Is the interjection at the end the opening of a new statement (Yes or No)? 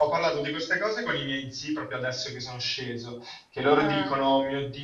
No